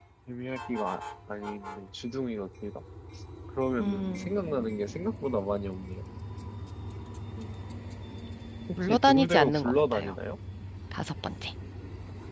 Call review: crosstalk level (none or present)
present